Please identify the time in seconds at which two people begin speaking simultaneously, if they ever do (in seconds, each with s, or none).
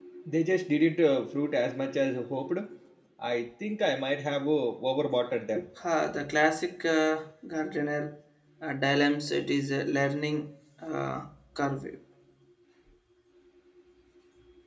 none